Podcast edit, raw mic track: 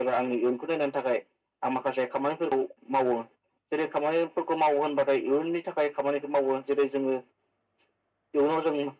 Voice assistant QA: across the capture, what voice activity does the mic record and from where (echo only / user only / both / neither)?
echo only